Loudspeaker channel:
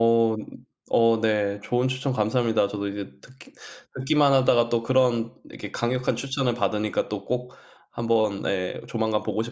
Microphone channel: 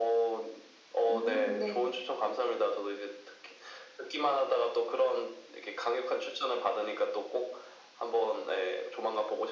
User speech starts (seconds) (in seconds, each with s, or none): 1.1 s